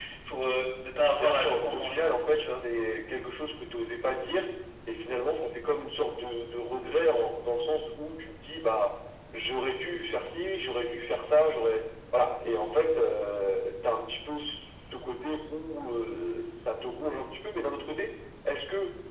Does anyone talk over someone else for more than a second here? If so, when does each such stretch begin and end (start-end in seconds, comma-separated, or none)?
1.1-2.4